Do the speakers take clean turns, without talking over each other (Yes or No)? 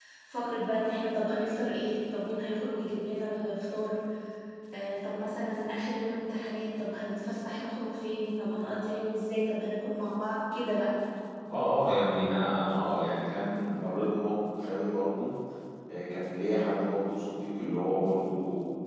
Yes